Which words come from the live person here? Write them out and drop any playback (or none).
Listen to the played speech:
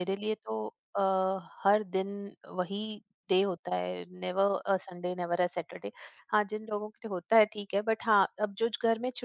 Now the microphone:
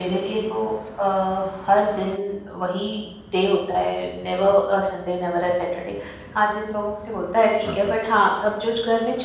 हाँ, हाँ।